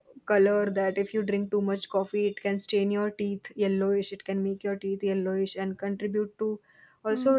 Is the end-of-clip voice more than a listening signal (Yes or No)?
No